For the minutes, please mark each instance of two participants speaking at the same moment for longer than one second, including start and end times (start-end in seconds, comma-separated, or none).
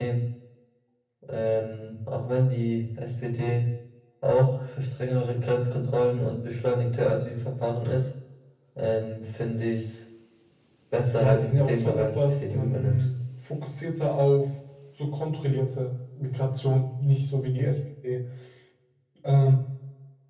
11.2-13.0